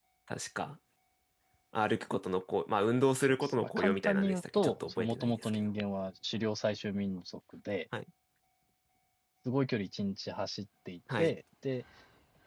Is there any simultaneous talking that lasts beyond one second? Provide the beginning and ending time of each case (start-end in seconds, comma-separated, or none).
3.2-5.6